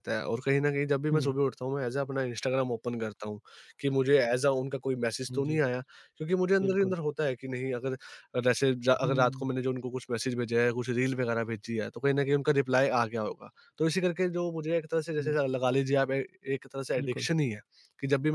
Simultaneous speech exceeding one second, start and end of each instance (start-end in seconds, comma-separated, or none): none